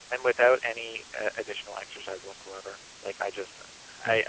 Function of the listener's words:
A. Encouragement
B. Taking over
A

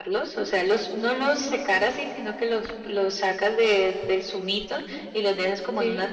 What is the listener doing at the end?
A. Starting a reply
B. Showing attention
B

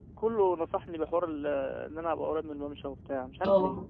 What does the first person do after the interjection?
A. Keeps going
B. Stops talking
B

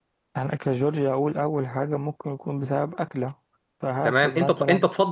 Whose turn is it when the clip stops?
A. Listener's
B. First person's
A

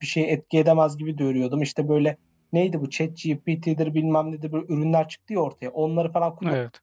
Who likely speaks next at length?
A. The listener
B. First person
B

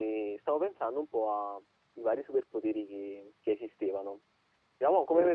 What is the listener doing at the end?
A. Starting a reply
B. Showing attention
B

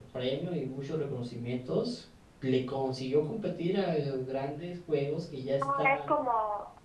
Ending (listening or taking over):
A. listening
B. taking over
B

